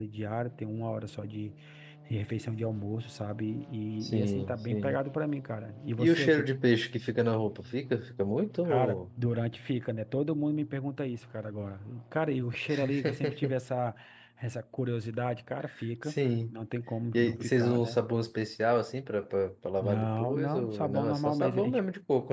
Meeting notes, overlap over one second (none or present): present